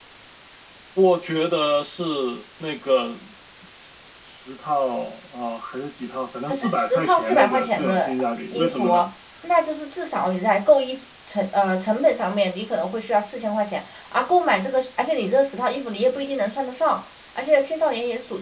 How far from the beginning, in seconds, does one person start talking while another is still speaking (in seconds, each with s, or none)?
6.5 s